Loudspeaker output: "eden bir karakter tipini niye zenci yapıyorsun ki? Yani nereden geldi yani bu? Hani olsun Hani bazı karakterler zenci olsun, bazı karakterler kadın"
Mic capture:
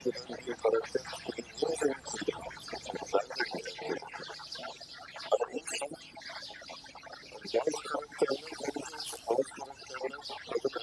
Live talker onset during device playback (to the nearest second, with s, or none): none